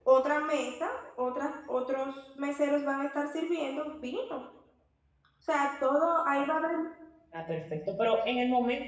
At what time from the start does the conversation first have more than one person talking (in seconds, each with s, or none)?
none